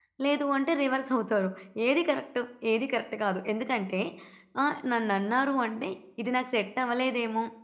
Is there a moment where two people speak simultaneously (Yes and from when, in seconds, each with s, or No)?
No